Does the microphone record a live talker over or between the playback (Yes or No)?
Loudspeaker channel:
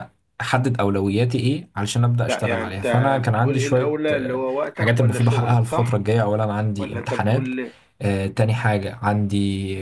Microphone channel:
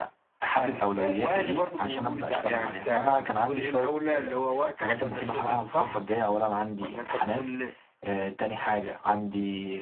Yes